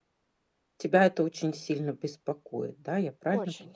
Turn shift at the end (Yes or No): Yes